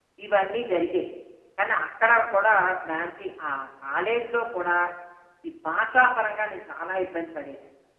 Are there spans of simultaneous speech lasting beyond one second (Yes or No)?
No